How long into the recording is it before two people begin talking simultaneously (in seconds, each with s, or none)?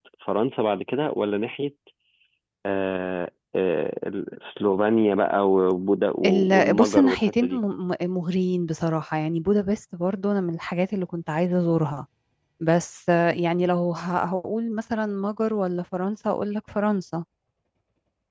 6.2 s